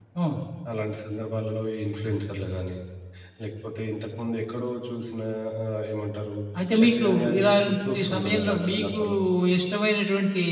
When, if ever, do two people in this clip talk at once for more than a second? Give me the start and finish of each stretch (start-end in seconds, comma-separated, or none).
6.8-9.0